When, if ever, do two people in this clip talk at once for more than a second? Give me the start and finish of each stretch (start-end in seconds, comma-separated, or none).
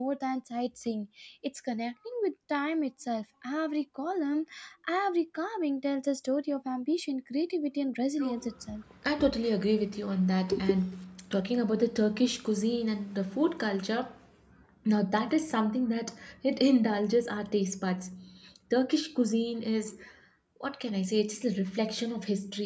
none